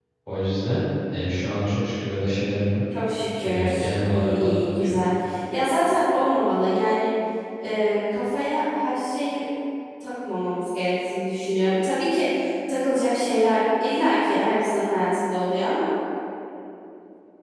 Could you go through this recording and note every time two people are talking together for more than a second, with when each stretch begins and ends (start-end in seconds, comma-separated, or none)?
3.4-5.0